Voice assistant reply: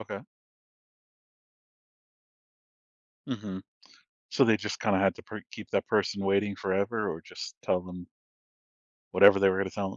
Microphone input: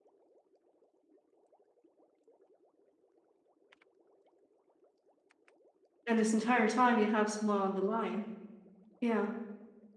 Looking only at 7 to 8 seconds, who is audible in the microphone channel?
user only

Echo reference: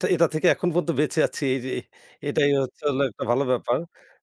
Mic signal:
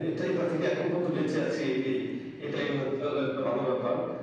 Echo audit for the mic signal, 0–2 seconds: echo only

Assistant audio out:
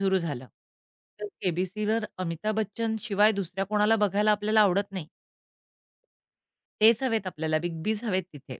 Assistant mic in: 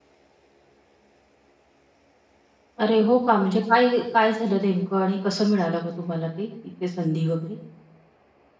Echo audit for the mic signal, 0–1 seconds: neither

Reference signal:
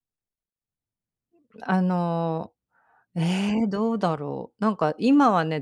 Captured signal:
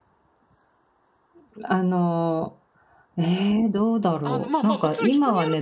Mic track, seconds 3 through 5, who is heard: both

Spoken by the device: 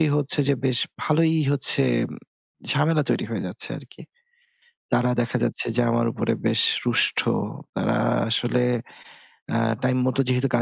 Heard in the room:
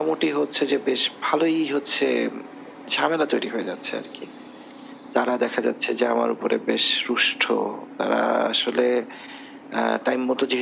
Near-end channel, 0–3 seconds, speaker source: echo only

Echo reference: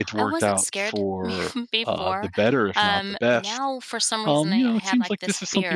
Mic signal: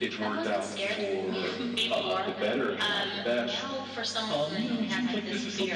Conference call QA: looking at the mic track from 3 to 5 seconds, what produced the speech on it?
echo only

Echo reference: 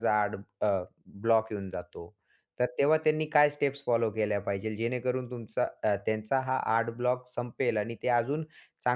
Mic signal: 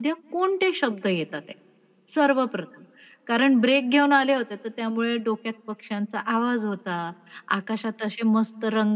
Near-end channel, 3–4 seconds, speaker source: user only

